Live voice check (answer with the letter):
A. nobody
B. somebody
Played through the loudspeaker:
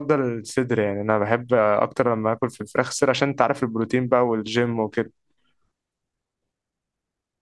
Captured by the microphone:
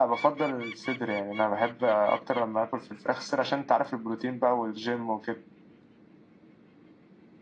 A